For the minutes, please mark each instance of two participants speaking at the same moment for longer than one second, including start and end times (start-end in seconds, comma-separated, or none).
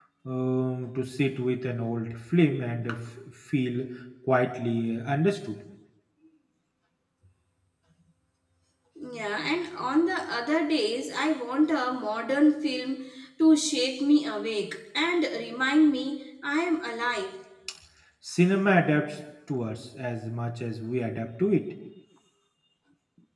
none